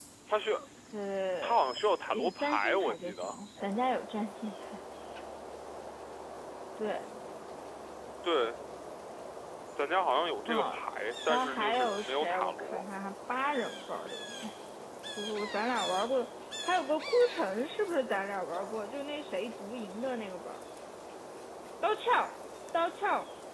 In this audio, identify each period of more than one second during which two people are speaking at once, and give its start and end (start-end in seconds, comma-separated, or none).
2.1-3.4, 11.3-12.8